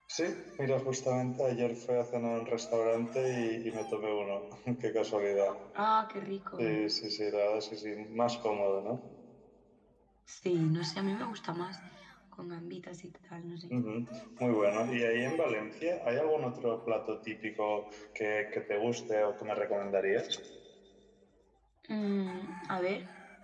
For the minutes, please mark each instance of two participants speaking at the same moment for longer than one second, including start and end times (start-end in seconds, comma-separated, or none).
none